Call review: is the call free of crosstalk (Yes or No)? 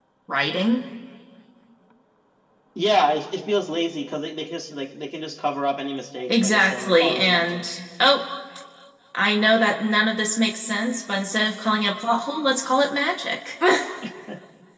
No